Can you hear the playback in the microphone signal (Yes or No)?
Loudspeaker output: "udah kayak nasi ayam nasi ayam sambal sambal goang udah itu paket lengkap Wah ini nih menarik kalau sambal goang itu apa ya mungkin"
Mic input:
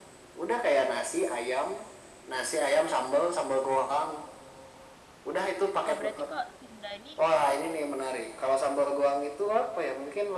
Yes